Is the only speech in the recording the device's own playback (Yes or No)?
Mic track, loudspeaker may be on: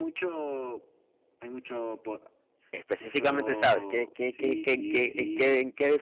No